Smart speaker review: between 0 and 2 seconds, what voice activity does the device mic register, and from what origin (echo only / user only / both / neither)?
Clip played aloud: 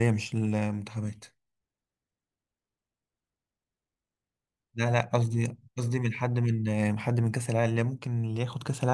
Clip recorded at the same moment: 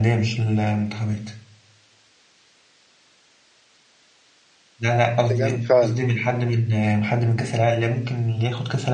echo only